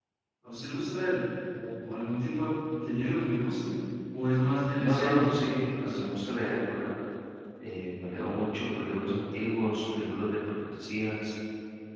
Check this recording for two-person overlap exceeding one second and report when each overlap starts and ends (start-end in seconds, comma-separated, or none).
4.8-6.0